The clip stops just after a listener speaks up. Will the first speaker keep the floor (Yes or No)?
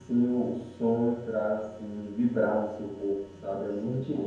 No